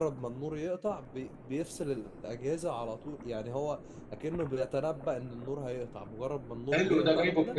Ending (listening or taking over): taking over